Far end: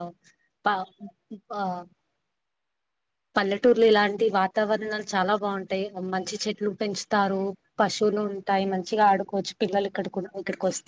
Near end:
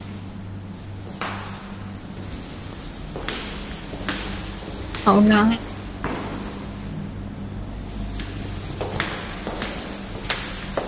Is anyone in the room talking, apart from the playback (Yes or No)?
Yes